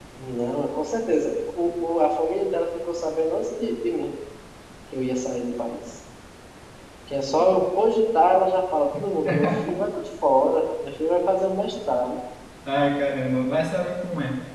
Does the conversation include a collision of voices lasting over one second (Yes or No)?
No